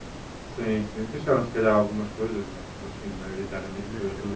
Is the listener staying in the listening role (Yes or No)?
No